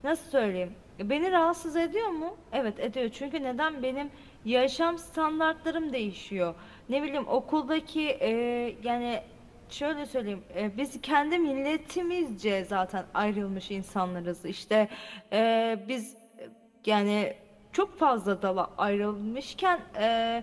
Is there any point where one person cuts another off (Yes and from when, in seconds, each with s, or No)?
No